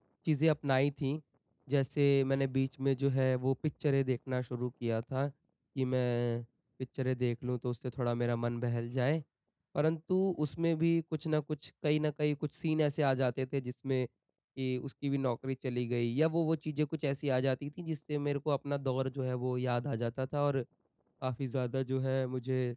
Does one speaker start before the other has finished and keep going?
No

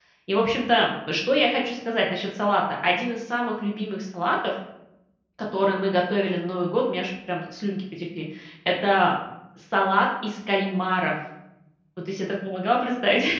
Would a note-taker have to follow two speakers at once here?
No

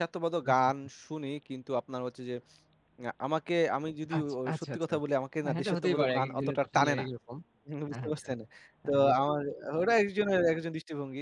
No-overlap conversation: No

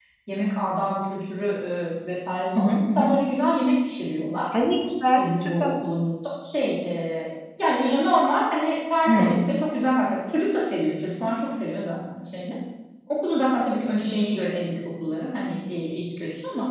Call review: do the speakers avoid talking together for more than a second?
Yes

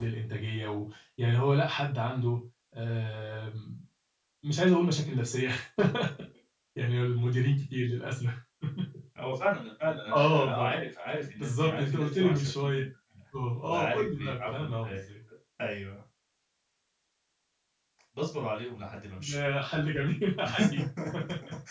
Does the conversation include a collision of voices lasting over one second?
Yes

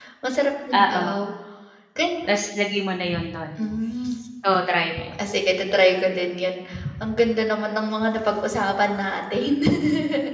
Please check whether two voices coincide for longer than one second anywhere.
No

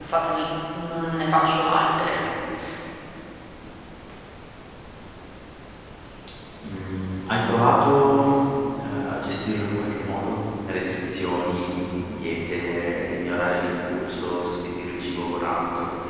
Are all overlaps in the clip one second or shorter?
Yes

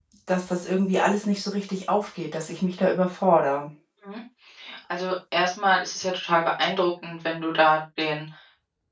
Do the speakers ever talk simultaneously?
No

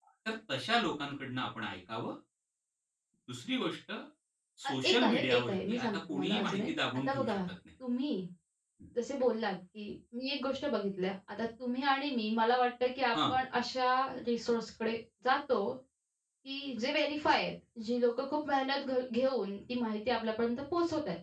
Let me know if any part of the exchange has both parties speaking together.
Yes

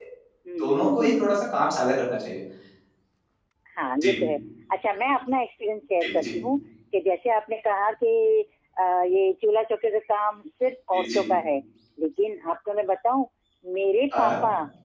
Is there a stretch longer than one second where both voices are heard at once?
No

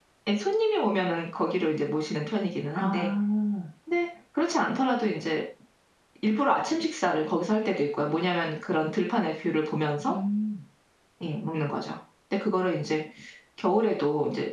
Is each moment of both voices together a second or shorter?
Yes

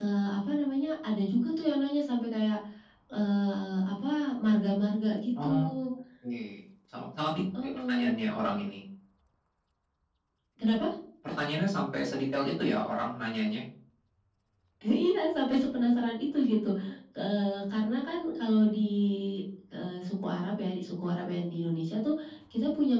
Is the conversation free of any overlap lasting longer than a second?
Yes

